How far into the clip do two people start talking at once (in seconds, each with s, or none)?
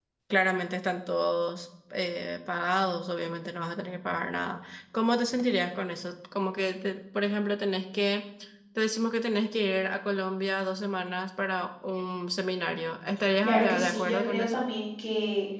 13.4 s